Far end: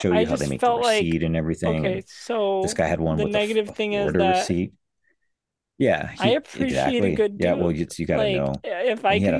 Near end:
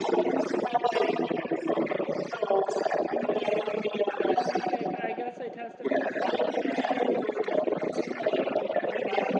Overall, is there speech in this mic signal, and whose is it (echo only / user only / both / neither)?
both